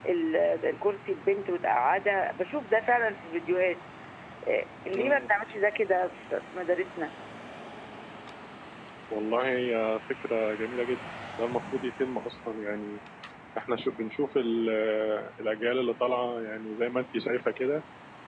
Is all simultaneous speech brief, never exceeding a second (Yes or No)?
Yes